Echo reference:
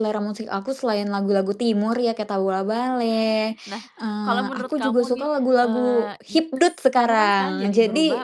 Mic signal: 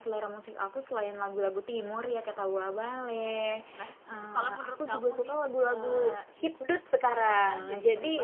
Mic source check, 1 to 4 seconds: echo only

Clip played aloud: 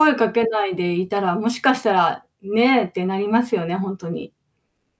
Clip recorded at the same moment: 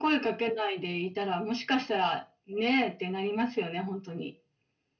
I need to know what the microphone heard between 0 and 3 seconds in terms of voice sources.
echo only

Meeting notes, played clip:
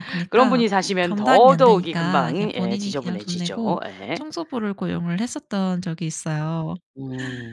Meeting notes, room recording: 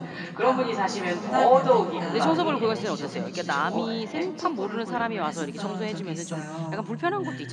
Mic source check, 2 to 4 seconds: both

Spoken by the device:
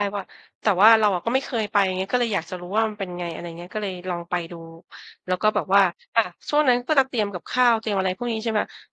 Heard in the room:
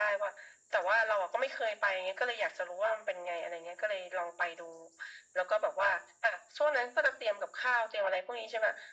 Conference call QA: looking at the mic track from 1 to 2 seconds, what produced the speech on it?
echo only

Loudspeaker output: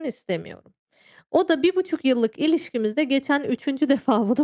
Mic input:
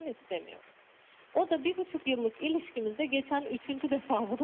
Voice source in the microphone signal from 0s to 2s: echo only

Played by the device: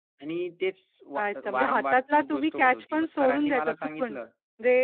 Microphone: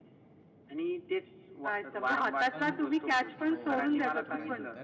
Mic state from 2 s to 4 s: both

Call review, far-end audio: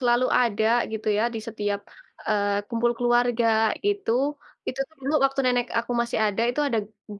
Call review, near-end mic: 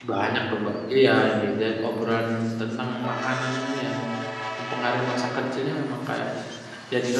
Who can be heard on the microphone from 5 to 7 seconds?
user only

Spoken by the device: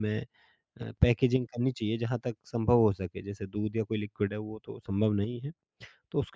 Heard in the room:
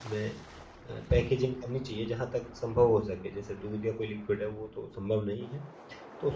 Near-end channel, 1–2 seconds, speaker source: echo only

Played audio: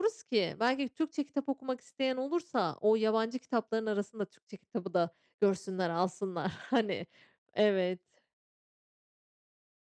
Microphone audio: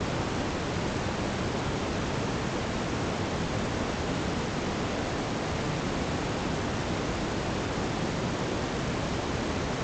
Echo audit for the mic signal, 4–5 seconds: neither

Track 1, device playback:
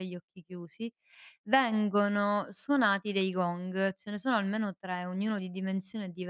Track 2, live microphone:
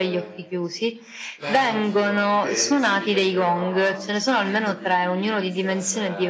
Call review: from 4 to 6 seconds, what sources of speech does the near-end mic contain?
both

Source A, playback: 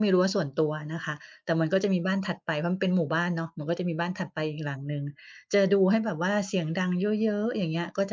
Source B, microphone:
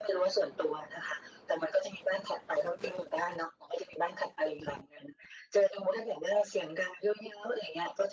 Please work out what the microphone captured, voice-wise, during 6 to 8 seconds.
echo only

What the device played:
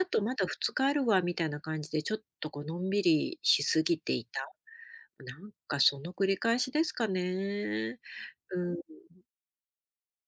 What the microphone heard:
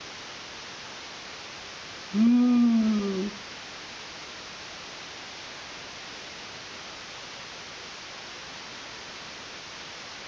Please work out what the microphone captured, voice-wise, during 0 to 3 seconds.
user only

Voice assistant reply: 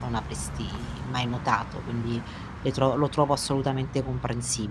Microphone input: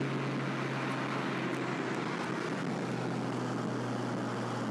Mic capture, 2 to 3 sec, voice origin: neither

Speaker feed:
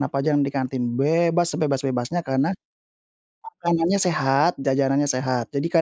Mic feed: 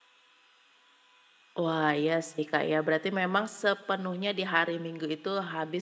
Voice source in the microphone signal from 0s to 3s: user only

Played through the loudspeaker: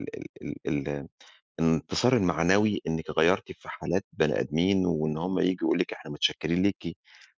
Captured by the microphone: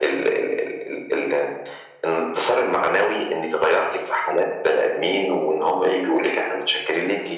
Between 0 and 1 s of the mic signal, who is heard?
echo only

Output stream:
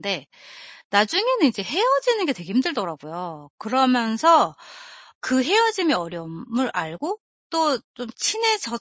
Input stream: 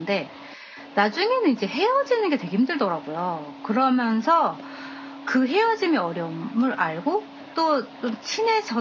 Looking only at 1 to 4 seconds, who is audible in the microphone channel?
echo only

